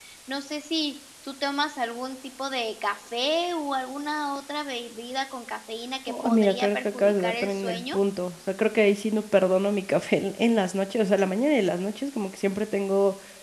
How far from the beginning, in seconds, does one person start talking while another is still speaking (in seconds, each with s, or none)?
6.1 s